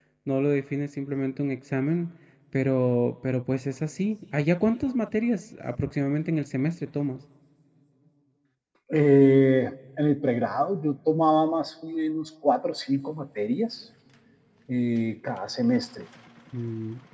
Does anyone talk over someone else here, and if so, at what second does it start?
none

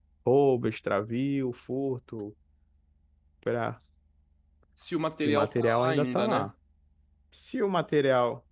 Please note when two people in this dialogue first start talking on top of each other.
5 s

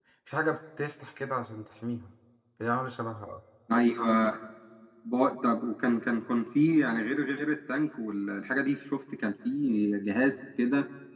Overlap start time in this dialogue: none

